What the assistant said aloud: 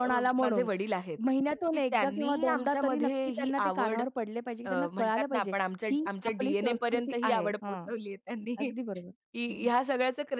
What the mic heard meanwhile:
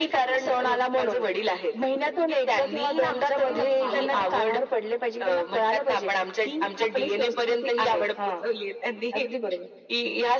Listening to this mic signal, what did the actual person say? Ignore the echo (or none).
अ, पालक आहेत.